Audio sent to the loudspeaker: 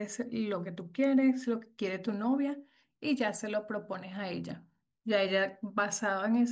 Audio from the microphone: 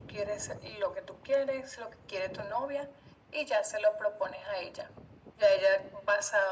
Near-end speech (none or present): none